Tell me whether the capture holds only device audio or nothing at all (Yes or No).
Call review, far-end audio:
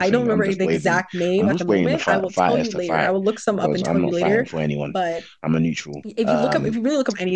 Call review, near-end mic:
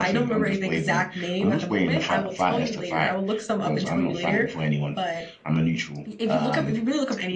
Yes